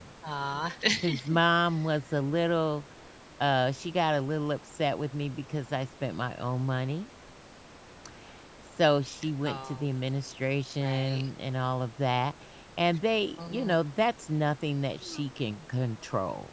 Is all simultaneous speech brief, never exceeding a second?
Yes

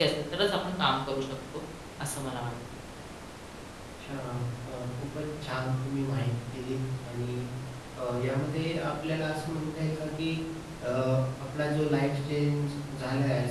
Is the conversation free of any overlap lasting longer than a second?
Yes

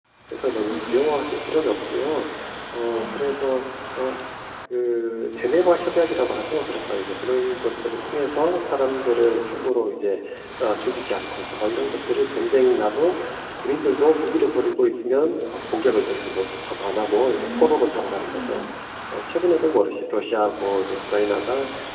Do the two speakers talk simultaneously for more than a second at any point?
Yes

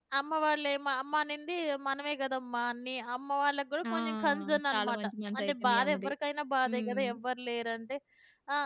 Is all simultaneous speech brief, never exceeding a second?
No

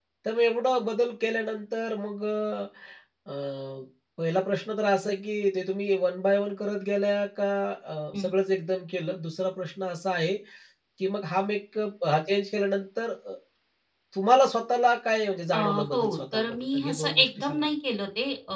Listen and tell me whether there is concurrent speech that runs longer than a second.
Yes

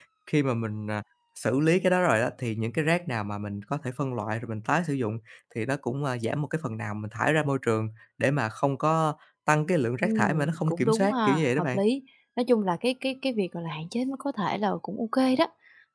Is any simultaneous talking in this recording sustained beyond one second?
Yes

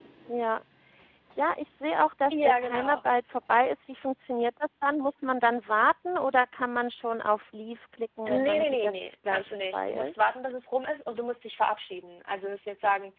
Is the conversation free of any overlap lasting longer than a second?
No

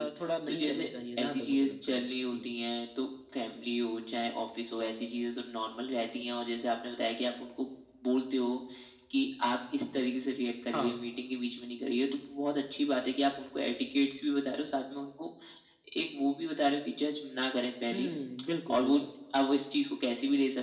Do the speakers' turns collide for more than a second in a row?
Yes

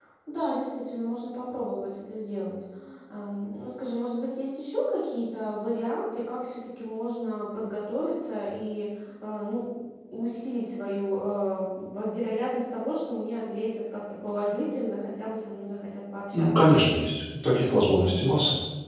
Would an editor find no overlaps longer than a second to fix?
Yes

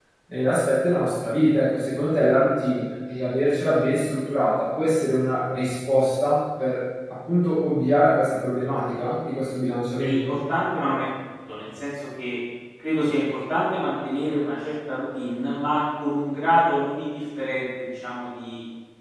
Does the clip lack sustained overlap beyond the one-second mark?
Yes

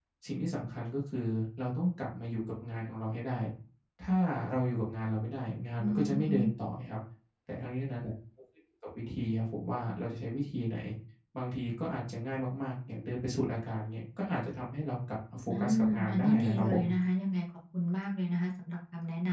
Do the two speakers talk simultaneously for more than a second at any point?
Yes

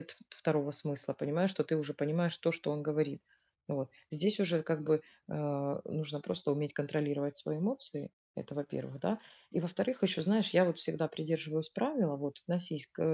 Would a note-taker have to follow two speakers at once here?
No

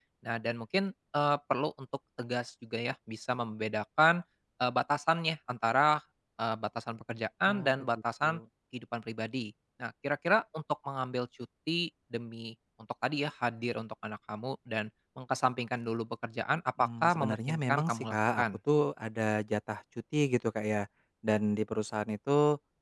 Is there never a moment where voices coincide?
No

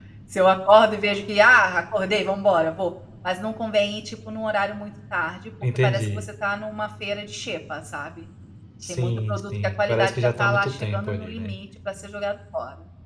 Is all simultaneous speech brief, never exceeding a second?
No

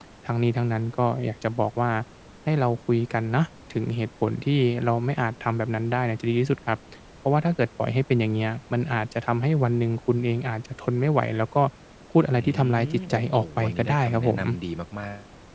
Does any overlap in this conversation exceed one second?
Yes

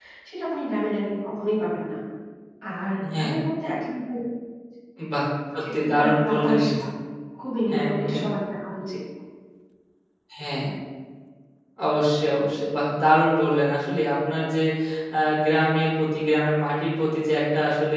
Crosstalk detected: Yes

